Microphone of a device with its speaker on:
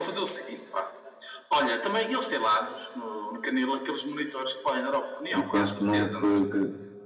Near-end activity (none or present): present